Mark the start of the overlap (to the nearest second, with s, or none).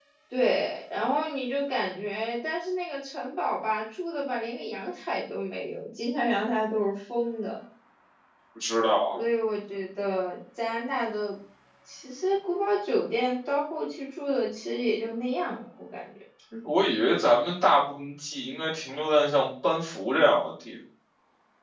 none